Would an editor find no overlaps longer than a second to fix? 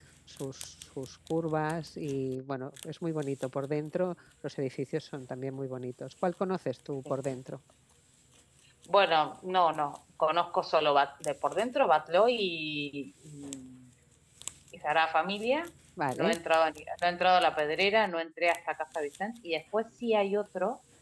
Yes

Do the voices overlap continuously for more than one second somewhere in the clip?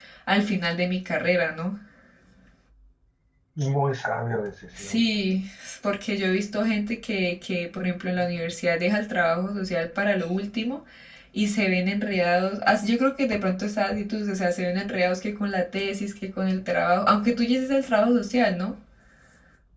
No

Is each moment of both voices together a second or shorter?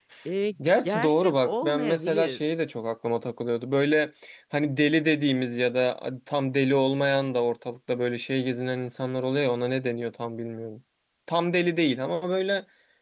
No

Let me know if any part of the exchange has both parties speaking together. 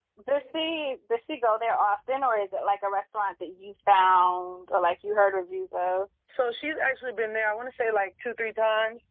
No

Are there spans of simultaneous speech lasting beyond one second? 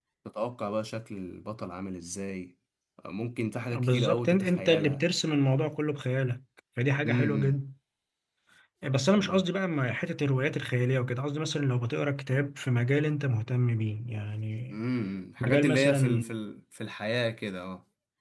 Yes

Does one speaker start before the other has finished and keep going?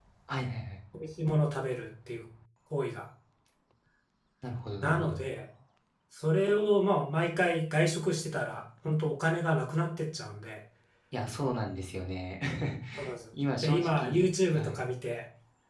Yes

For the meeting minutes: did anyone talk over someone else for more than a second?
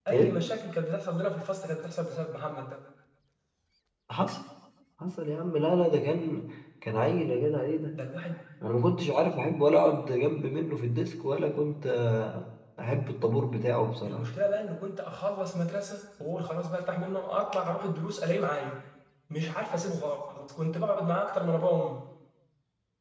No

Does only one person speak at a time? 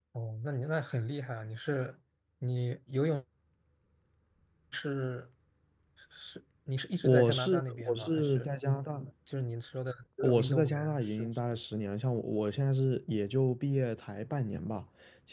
No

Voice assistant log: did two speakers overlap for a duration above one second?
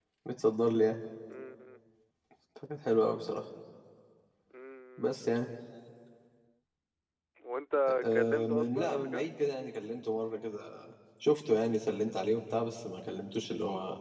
Yes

